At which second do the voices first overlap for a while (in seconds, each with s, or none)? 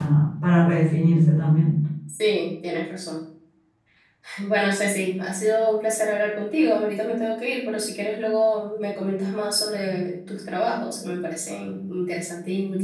none